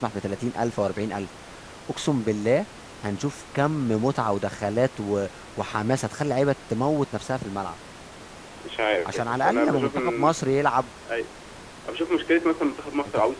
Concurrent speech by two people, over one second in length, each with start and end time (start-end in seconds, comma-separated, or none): 9.1-10.3